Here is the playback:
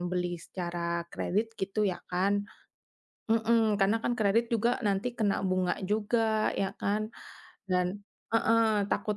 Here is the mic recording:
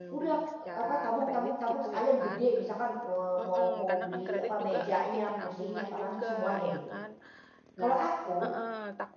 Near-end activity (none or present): present